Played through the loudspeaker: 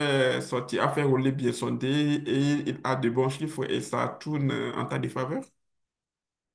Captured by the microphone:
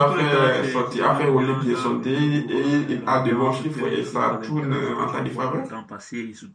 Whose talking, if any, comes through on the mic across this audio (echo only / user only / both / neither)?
both